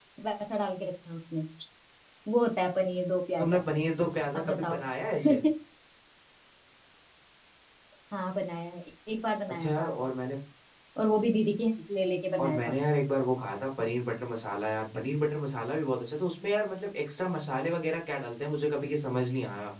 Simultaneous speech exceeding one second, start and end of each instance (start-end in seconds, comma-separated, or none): none